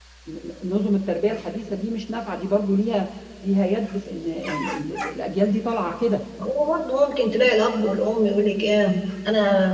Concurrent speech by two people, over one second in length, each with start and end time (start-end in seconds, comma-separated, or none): none